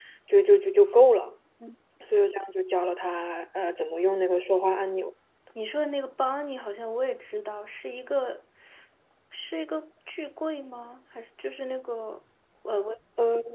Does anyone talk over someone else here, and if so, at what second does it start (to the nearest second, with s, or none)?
none